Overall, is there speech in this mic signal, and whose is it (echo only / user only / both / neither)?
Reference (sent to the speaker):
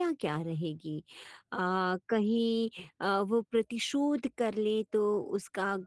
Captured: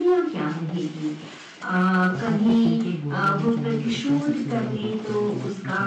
both